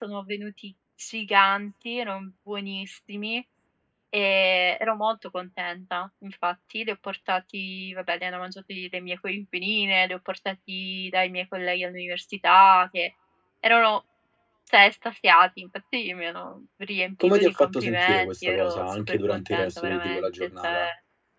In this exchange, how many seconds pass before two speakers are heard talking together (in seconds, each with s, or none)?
17.2 s